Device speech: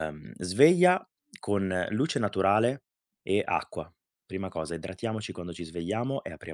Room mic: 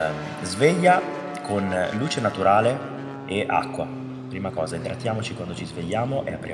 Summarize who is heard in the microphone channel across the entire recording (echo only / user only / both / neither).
echo only